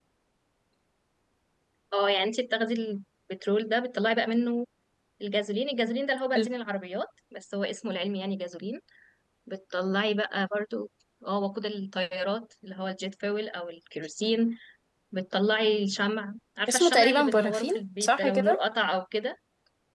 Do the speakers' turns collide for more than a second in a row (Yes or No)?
Yes